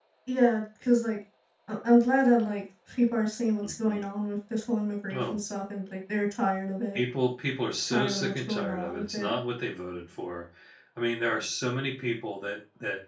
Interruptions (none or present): present